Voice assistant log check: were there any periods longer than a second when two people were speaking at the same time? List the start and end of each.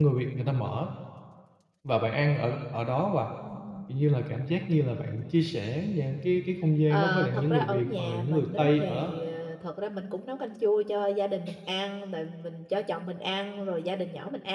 6.9-9.1

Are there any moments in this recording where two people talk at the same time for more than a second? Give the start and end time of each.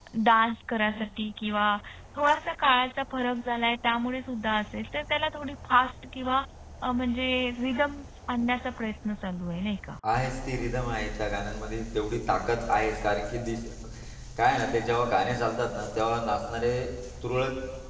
none

